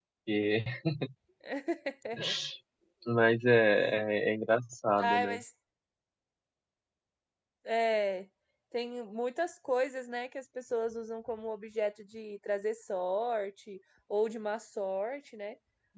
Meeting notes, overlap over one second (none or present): none